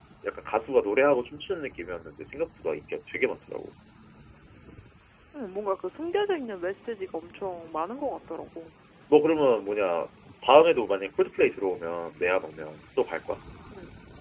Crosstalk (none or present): none